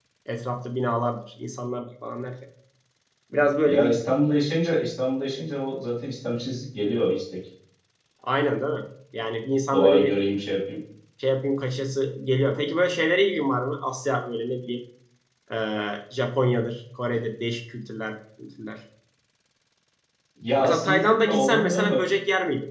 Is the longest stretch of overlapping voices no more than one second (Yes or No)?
No